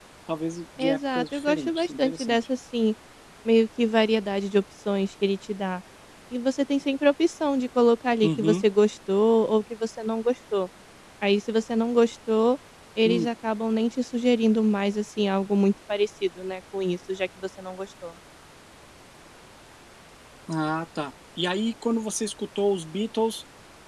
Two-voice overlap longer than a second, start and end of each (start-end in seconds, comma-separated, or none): 0.8-2.4